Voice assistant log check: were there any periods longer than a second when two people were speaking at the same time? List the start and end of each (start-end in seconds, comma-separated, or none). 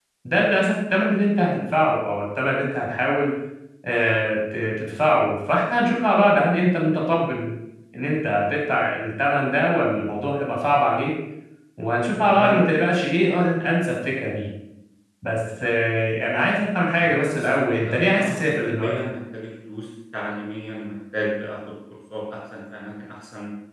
17.0-18.9